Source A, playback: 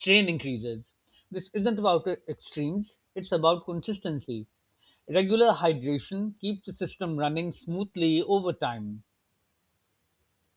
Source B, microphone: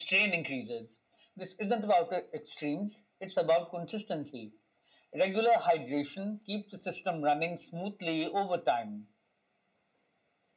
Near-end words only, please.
none

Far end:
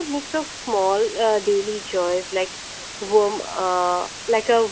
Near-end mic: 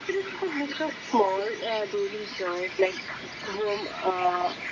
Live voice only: none

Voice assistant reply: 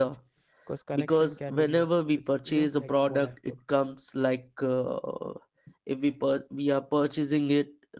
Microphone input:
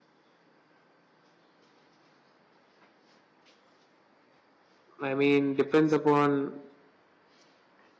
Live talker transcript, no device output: I mean depends upon

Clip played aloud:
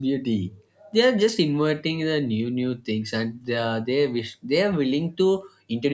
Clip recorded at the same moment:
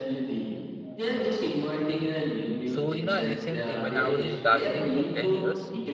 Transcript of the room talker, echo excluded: so you know it's same thing when i was in darjeeling for 10 years

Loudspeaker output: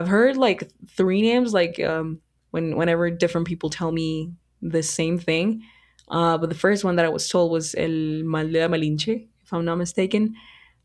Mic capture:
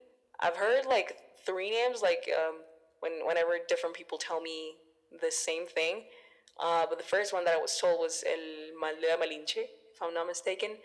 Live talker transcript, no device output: none

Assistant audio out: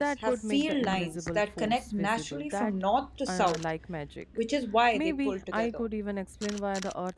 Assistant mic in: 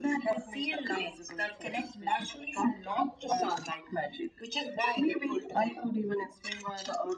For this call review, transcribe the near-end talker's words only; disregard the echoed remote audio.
none

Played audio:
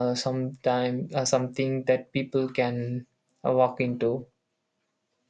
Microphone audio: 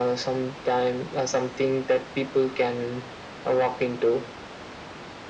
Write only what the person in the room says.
none

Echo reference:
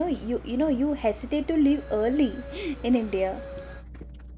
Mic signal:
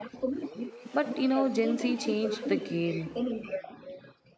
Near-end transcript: but you know, Gen Z changed the game.

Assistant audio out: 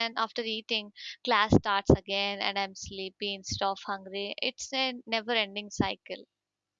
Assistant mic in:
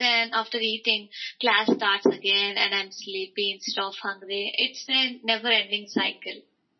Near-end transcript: none

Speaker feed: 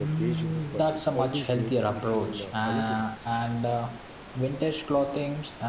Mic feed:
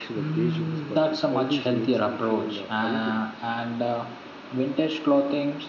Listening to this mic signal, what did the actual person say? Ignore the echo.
none

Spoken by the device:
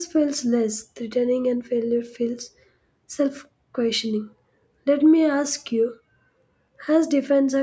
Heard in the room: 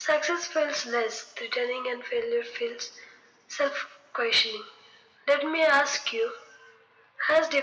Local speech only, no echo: none

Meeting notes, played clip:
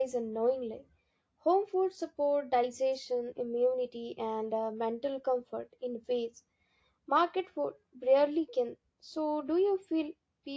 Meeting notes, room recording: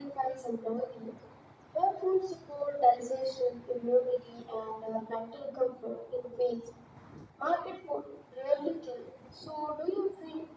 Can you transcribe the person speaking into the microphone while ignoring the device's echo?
none

